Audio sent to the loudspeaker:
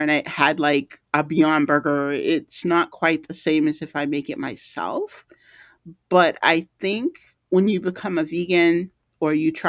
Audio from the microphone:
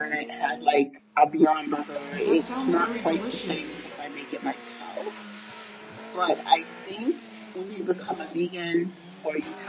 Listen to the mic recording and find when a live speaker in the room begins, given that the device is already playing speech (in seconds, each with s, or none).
2.1 s